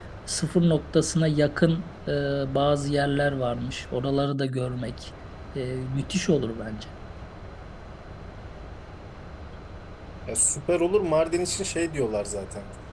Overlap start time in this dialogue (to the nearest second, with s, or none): none